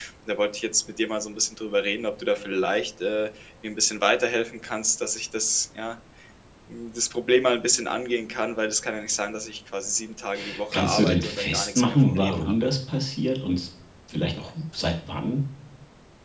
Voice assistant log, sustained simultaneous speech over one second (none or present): present